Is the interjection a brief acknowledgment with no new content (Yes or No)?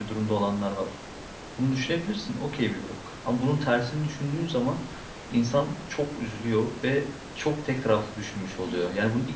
Yes